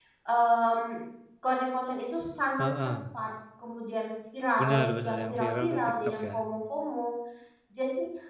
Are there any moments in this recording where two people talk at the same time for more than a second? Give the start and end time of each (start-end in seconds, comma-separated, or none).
4.6-6.4